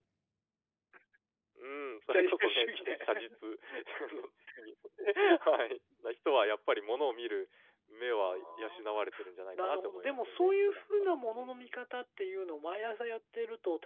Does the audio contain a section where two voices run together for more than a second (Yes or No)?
Yes